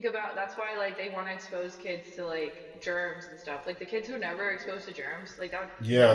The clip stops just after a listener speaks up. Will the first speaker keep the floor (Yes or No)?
No